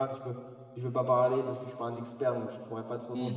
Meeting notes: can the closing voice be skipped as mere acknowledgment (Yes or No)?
No